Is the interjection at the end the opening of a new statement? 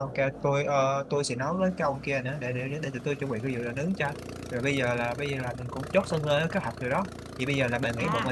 Yes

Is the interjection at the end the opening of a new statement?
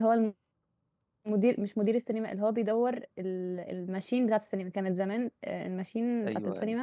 No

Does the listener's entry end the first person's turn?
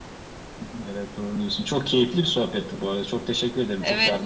Yes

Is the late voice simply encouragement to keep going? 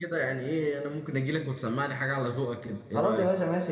No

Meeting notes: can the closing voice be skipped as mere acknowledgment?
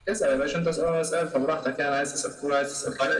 No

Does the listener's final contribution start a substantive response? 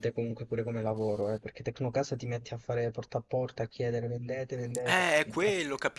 Yes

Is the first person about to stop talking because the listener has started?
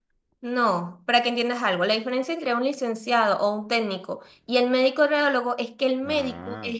No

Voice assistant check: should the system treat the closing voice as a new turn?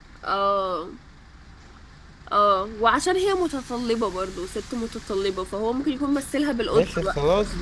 Yes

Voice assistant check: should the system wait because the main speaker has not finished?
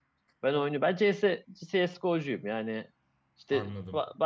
Yes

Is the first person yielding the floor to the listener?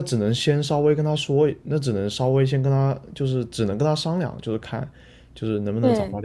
No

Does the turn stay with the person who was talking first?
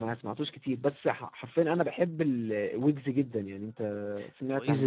No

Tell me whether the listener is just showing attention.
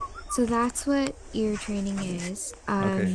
No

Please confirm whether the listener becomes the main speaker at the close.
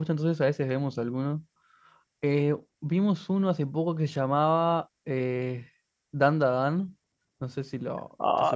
Yes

